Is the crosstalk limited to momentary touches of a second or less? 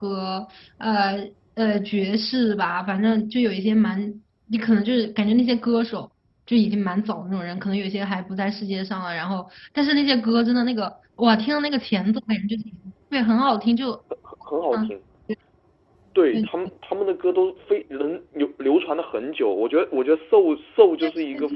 Yes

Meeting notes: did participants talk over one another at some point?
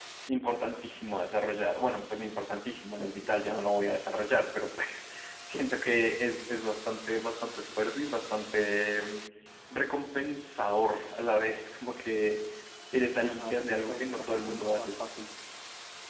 Yes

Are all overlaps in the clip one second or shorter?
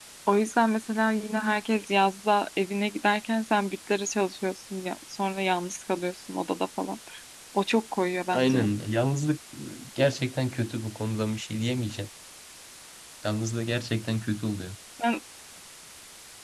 Yes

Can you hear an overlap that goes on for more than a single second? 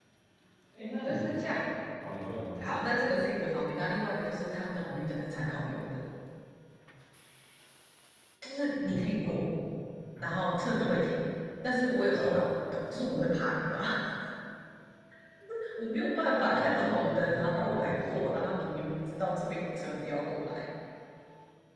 Yes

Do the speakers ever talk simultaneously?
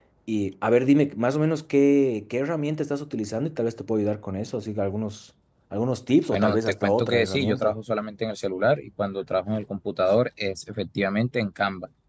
Yes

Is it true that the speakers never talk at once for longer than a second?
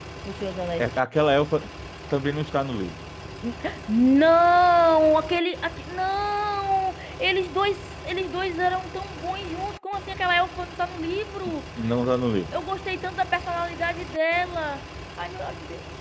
Yes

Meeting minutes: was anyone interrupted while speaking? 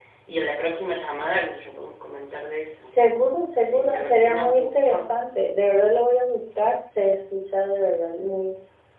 Yes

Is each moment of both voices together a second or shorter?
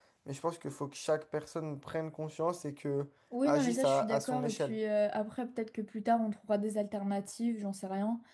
No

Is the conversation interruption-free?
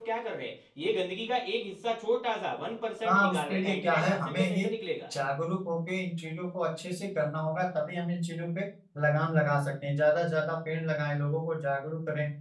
No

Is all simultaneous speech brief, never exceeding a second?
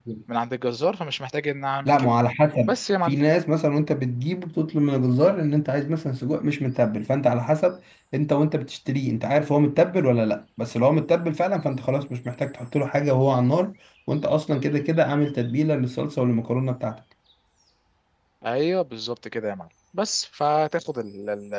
Yes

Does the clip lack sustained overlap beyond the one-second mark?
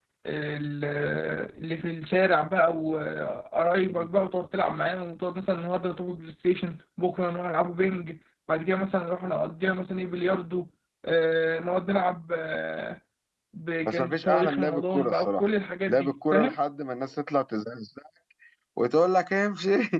No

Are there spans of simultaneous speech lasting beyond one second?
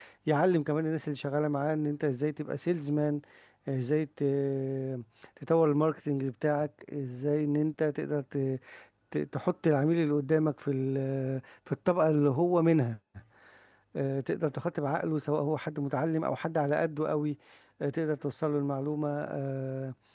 No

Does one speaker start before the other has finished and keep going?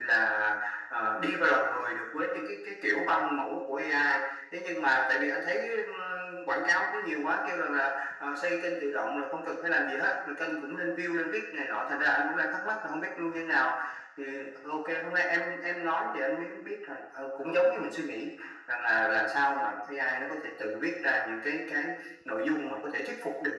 No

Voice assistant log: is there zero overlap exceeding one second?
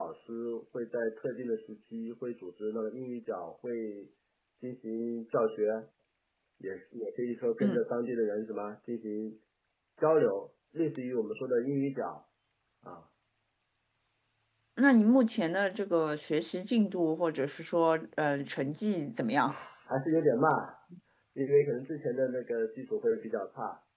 Yes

